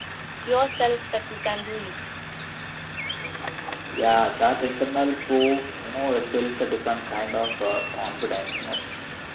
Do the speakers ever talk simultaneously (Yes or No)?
No